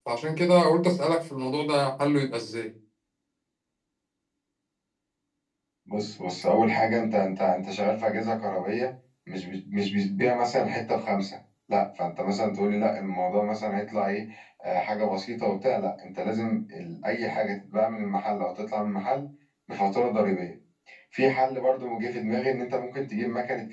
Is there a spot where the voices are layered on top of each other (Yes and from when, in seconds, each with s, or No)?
No